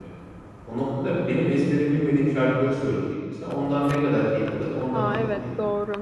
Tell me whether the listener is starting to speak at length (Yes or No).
Yes